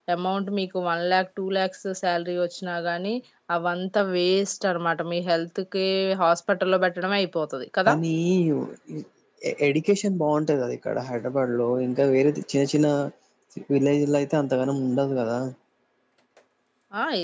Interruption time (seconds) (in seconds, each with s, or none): none